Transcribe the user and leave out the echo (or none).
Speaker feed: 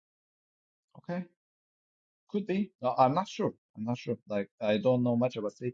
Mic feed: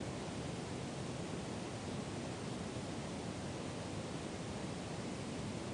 none